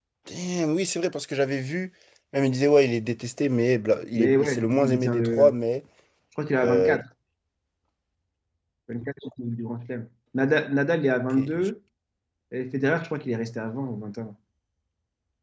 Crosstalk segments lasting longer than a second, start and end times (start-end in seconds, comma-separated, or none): 4.1-5.5